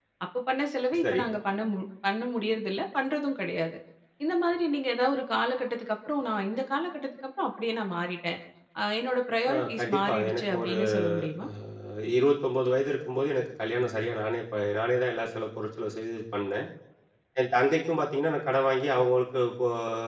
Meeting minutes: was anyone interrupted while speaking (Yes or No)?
Yes